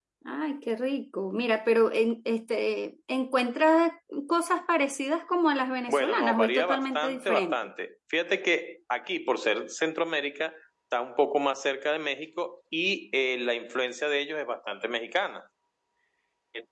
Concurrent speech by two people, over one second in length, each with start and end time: 5.9-7.7

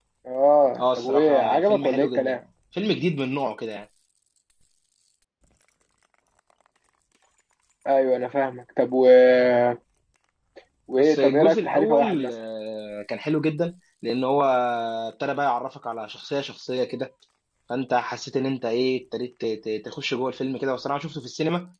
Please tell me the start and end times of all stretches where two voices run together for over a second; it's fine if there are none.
0.8-2.4, 11.0-12.3

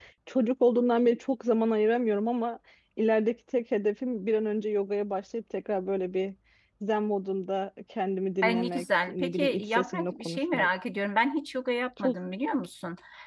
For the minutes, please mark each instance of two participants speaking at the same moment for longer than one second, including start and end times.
8.4-10.7

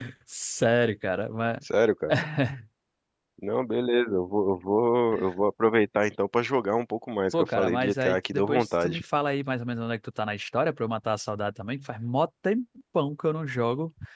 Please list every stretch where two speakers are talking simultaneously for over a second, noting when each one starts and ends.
7.3-9.0

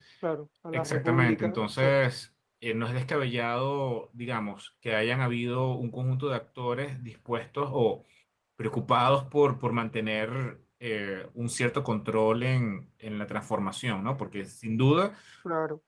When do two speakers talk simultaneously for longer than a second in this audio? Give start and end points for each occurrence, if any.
0.7-2.1

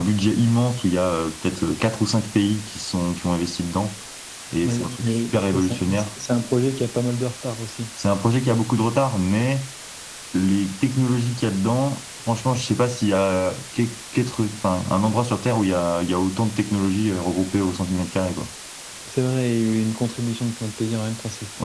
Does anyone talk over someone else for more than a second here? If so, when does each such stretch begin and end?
4.6-6.0

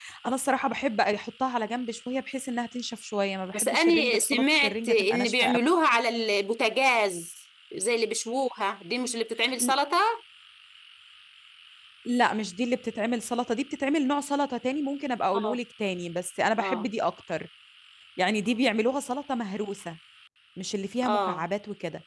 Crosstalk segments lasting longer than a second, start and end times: 3.5-5.6

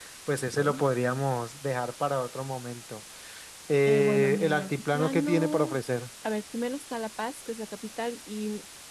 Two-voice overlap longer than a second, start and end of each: 3.9-5.8

